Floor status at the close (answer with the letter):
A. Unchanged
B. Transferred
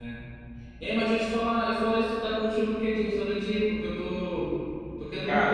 A